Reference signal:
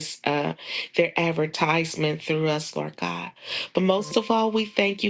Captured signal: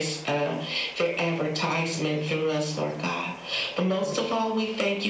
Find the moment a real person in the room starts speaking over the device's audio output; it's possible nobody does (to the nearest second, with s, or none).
none